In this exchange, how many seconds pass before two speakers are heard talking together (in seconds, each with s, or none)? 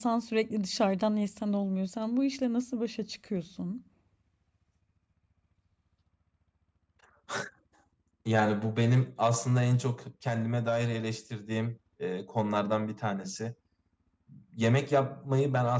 none